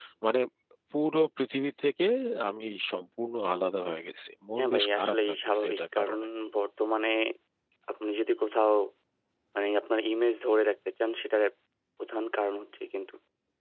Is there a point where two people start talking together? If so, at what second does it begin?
4.6 s

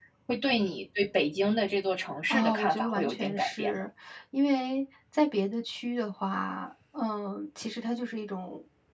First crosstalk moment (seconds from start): 2.3 s

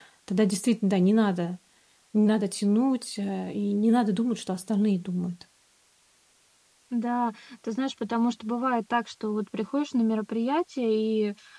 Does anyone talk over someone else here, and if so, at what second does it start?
none

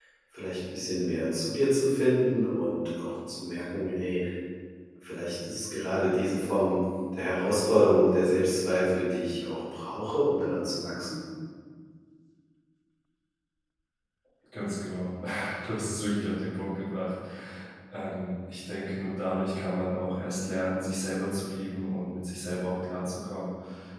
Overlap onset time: none

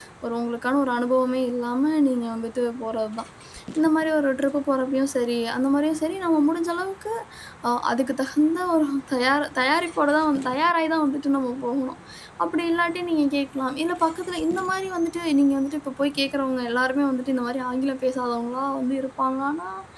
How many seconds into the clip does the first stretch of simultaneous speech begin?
none

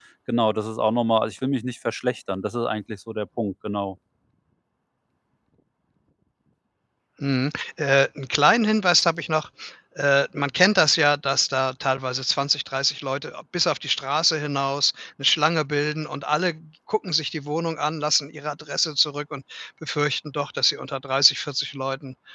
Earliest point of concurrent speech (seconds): none

